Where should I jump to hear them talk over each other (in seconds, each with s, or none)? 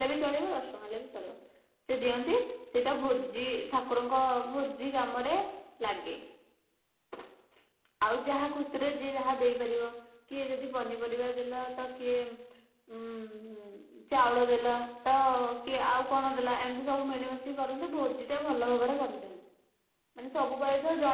none